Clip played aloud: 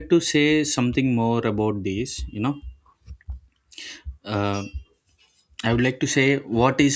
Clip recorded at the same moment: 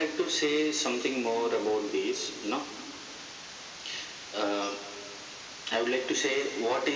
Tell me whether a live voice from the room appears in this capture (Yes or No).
No